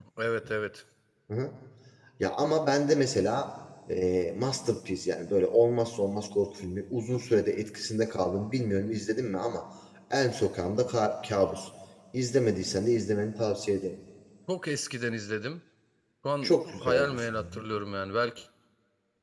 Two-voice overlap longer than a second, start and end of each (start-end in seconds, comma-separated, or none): 16.4-17.6